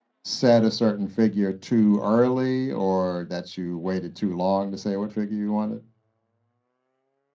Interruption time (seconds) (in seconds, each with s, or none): none